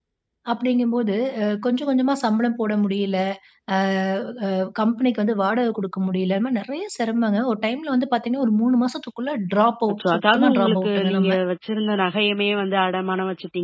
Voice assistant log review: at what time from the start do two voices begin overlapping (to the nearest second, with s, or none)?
10 s